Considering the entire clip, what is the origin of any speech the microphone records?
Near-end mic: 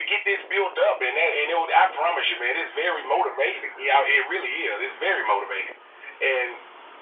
echo only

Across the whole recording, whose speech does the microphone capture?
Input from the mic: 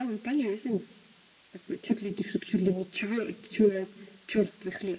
echo only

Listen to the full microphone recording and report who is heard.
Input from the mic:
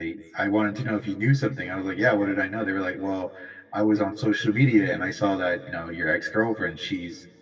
user only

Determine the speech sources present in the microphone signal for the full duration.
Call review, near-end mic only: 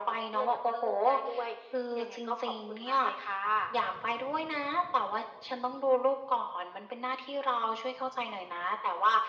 echo only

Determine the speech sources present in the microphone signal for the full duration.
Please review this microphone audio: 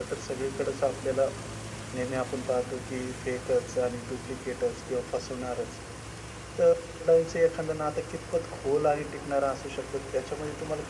user only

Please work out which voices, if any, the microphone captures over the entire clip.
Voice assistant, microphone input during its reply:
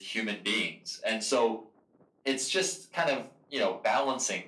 echo only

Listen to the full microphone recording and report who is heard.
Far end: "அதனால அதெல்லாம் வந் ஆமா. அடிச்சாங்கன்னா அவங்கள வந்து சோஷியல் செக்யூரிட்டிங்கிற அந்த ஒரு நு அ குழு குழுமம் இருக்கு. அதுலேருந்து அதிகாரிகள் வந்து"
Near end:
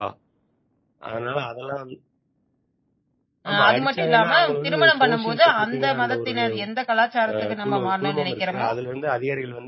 both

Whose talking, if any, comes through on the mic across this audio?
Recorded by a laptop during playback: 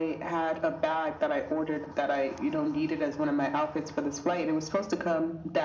echo only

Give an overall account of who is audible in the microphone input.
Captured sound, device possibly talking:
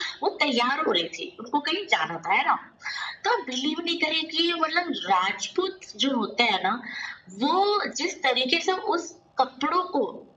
echo only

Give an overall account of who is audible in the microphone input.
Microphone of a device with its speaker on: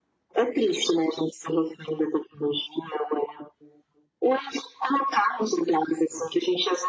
echo only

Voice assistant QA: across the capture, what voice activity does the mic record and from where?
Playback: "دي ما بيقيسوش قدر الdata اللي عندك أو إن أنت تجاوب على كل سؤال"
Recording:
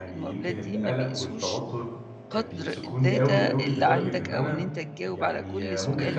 both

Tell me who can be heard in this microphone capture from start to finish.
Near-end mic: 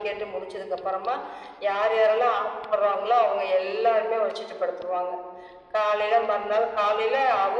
echo only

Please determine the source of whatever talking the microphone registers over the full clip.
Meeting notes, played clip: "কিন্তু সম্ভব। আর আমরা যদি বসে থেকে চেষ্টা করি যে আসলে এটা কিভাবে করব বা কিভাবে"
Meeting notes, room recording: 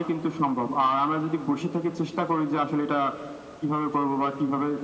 echo only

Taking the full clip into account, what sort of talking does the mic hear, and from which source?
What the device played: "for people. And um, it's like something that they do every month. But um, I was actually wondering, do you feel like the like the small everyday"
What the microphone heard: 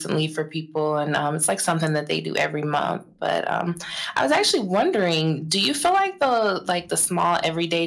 echo only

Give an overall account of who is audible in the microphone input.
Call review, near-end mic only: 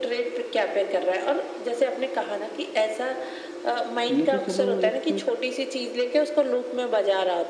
both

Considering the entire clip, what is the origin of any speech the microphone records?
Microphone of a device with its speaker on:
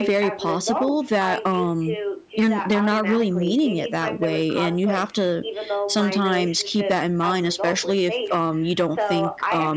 both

